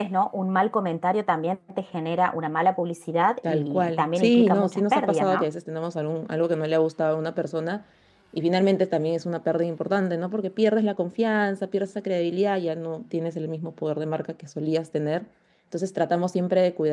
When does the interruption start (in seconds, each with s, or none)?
3.4 s